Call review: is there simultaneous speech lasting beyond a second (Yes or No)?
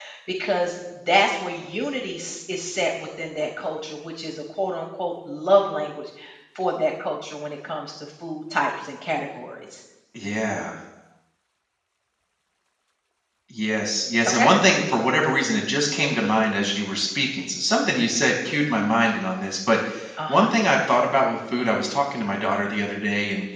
No